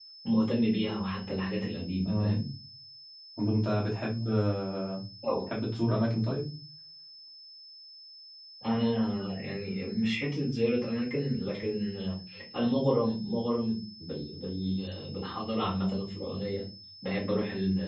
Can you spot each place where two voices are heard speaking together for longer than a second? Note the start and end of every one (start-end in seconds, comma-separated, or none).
none